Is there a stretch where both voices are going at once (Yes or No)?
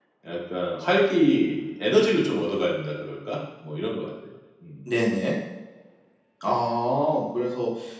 No